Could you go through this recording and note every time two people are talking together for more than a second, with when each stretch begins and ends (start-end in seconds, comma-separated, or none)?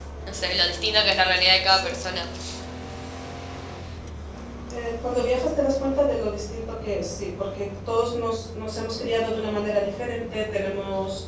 none